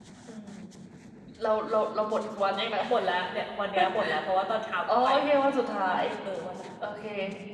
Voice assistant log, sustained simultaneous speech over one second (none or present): none